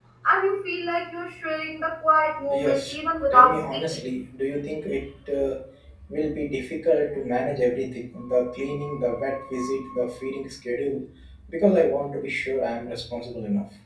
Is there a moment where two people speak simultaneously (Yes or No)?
Yes